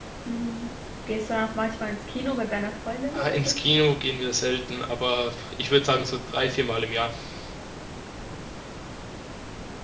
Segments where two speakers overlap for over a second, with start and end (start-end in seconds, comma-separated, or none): none